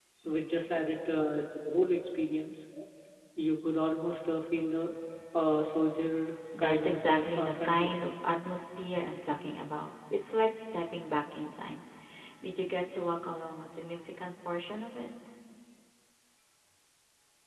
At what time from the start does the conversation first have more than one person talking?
7 s

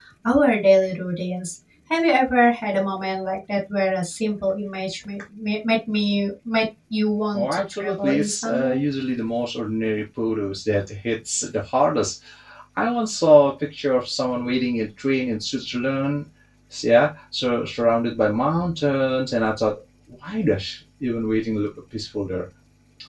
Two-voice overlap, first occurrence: 7 s

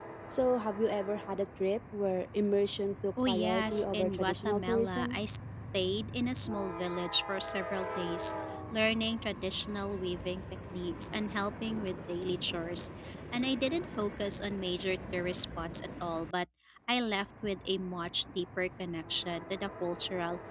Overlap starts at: 3 s

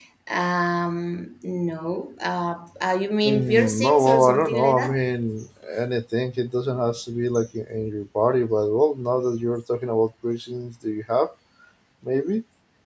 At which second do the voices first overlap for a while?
3 s

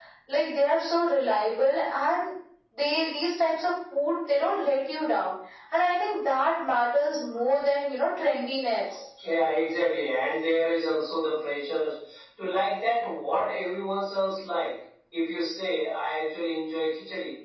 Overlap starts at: none

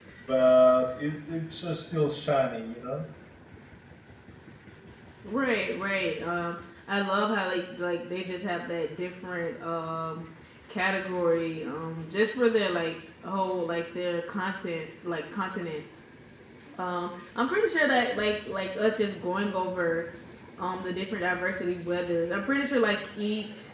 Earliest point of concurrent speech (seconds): none

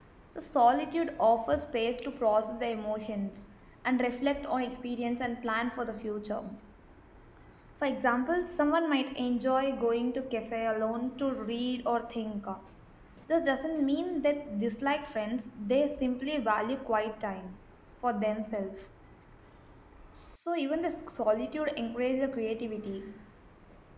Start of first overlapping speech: none

